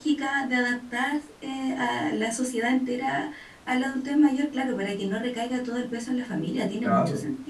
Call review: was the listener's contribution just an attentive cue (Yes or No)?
No